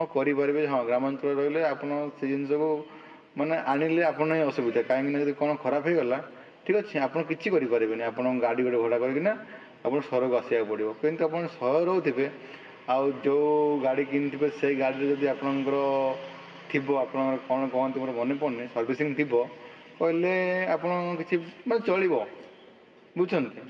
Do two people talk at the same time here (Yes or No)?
No